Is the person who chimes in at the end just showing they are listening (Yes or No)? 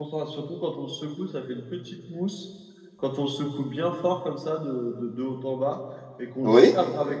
Yes